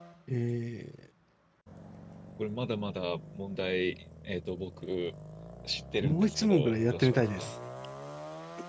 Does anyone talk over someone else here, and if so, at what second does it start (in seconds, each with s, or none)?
6.0 s